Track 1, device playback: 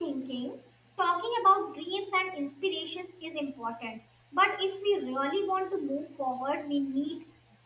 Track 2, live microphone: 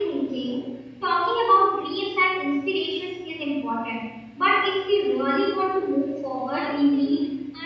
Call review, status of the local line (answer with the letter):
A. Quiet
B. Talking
B